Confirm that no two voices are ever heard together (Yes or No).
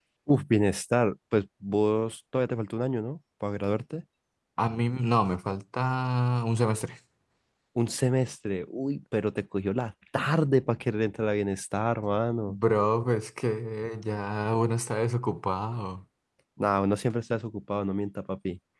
Yes